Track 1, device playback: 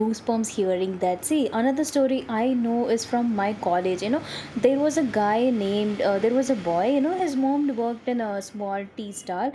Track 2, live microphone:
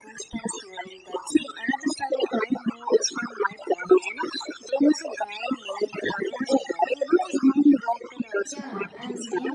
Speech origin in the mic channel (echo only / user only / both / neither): both